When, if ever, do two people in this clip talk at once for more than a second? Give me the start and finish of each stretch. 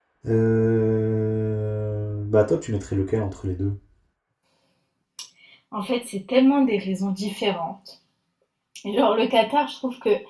none

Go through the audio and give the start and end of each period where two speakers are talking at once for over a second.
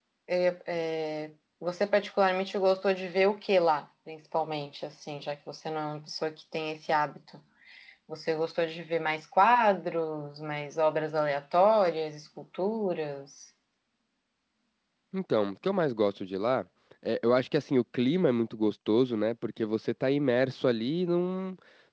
none

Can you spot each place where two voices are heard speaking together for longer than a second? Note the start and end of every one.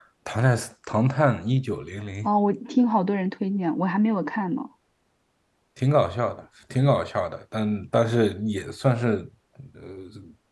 none

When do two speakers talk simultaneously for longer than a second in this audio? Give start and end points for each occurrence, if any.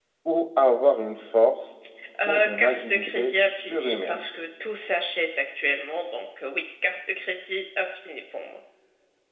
2.3-4.3

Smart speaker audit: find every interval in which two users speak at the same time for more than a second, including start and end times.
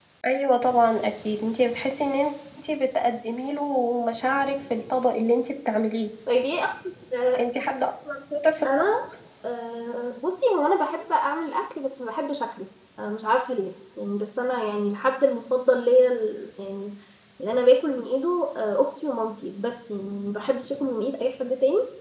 none

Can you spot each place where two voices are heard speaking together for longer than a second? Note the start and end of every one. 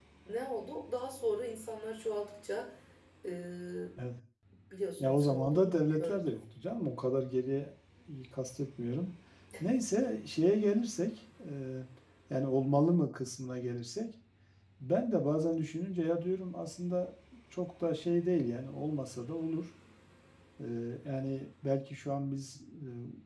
5.0-6.4

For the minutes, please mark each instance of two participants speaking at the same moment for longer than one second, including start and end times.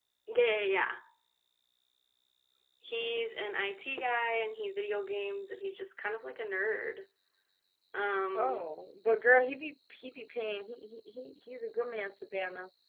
none

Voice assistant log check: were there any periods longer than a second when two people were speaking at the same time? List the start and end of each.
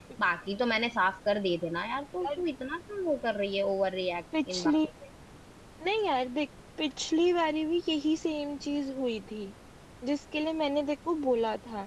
none

